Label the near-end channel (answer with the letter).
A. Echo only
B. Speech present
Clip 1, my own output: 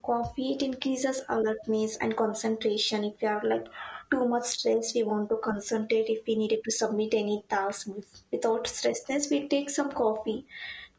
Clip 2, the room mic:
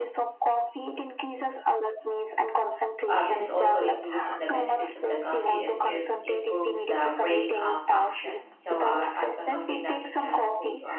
B